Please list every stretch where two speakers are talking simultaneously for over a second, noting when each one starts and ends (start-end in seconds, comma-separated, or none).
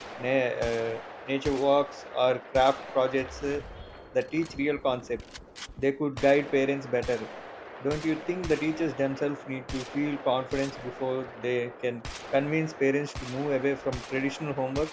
none